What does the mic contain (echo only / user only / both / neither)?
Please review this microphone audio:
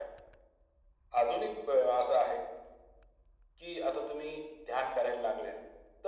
echo only